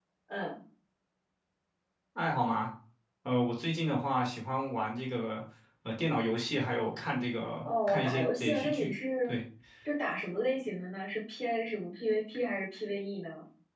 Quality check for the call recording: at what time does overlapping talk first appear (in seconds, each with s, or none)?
7.7 s